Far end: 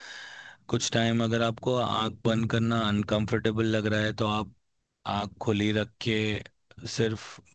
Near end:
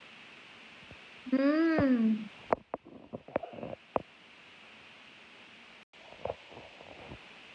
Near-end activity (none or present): present